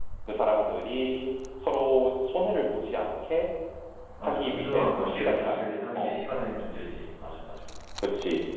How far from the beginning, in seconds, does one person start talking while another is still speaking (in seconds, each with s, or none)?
4.2 s